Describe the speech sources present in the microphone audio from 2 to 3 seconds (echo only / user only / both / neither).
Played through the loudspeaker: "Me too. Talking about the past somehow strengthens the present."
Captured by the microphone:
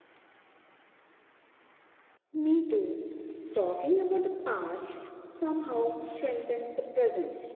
echo only